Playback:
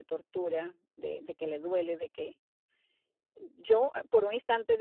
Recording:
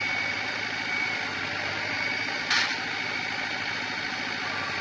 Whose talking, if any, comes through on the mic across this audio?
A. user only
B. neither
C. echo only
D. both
B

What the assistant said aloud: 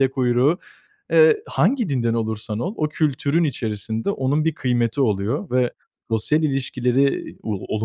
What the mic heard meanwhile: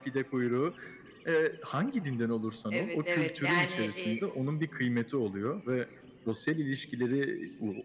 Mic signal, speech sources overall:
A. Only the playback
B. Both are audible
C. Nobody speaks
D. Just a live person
B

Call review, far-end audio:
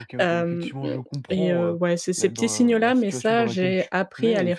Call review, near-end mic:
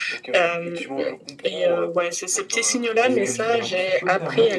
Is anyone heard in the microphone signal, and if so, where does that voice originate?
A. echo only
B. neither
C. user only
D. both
D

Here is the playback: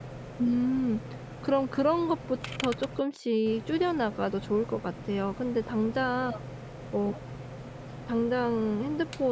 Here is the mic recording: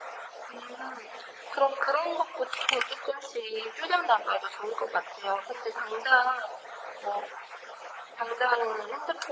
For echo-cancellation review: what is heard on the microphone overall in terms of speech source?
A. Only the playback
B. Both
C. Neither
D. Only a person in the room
A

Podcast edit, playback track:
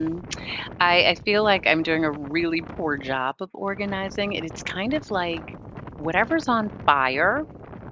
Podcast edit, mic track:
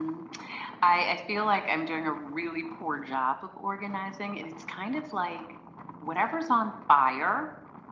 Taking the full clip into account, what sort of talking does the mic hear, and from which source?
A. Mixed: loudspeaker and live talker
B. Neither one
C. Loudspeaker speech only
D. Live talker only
C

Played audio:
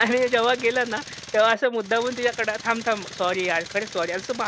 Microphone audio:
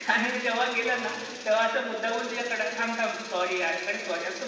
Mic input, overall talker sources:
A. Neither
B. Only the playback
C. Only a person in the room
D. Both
D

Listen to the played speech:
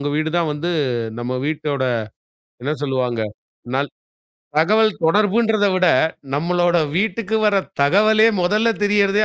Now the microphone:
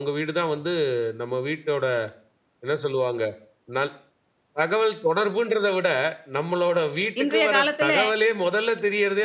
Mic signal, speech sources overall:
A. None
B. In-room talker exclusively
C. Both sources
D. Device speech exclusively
C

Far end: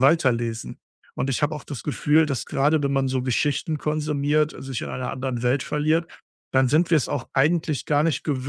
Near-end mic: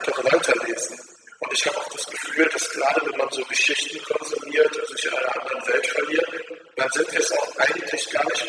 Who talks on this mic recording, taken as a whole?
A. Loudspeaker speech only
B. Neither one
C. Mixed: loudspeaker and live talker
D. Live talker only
A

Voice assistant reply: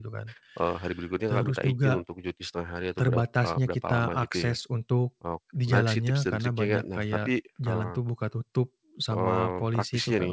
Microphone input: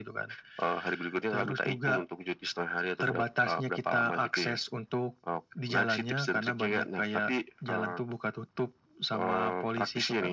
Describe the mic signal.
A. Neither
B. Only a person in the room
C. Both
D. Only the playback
D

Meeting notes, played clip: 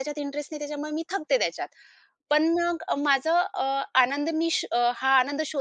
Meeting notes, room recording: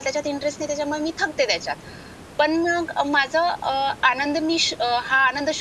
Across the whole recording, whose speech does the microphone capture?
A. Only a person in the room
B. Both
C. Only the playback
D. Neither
C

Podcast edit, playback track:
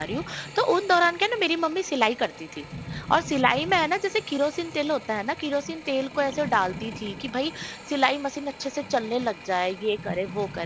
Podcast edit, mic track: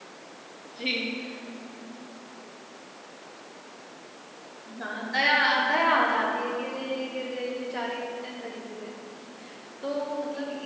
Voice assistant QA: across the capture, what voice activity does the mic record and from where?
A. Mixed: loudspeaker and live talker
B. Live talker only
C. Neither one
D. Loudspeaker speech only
B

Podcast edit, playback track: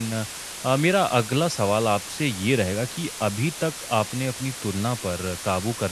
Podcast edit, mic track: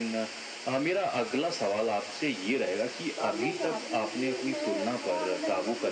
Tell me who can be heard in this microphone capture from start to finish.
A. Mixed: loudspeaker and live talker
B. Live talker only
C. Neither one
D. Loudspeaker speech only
A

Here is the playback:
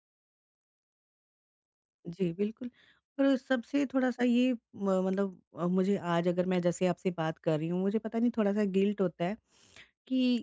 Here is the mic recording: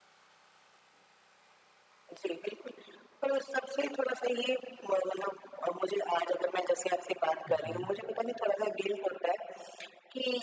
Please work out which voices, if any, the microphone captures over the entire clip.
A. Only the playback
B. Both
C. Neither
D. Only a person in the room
B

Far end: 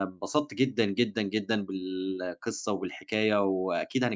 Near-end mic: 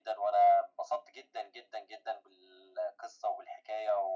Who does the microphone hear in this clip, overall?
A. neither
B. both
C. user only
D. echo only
D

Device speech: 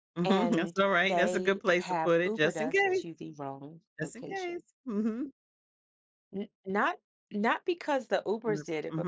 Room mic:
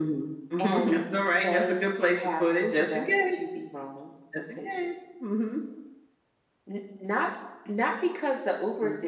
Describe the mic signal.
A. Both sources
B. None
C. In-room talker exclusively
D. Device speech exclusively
D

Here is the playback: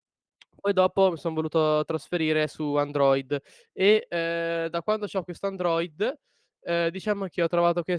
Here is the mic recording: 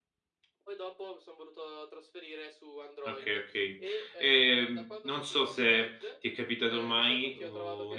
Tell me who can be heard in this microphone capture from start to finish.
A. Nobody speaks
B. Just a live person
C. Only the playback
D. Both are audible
D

